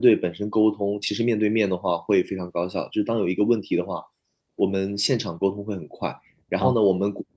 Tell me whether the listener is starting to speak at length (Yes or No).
No